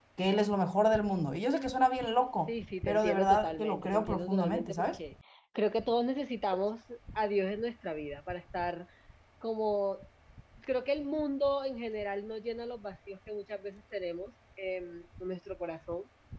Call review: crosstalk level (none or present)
present